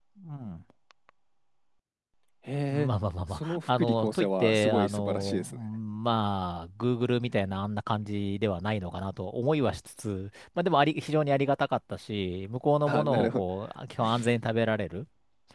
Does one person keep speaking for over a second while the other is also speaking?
Yes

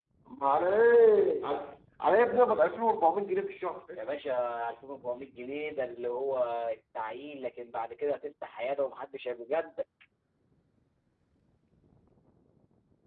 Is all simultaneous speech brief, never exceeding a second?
Yes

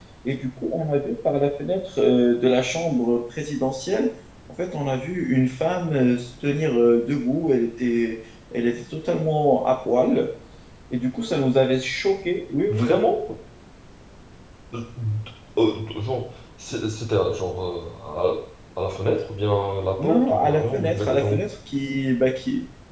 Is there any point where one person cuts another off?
Yes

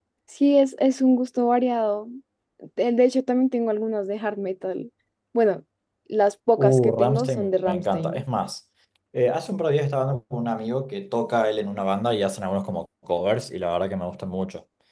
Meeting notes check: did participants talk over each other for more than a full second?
Yes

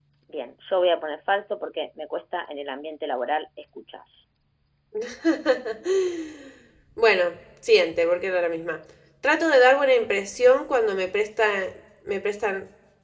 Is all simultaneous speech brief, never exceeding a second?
Yes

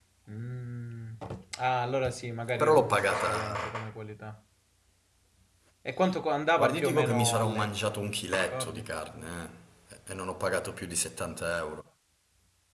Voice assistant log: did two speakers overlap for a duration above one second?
Yes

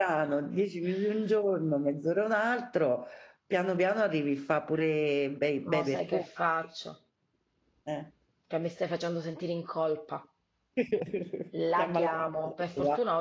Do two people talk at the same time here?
Yes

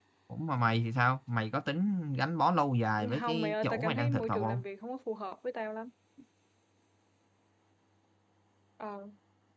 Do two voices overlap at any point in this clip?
Yes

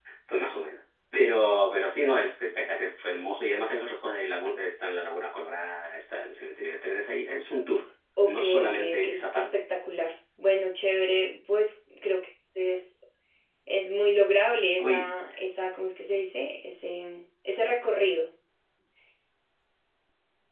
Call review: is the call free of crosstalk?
No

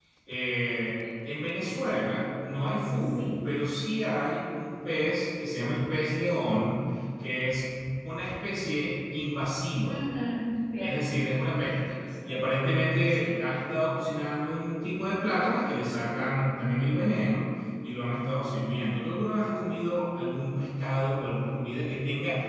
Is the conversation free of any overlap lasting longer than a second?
Yes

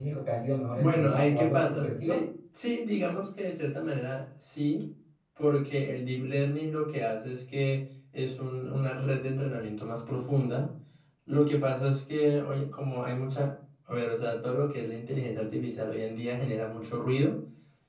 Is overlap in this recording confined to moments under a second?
No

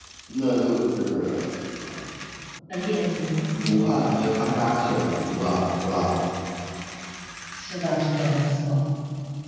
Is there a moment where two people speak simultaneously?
No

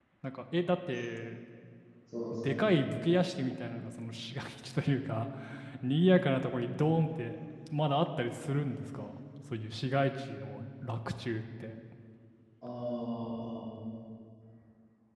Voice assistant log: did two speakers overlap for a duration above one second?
No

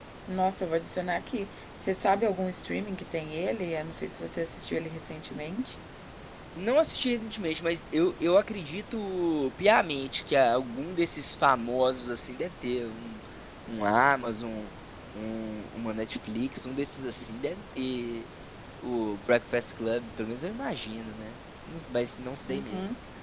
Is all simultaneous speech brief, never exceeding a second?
Yes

